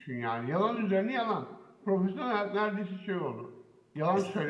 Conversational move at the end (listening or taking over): listening